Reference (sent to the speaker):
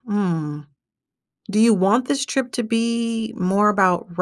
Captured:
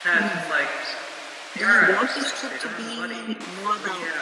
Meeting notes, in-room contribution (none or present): present